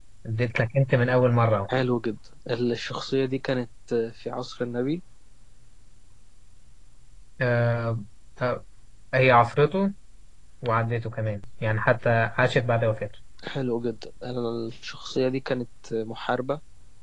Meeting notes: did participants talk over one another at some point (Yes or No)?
No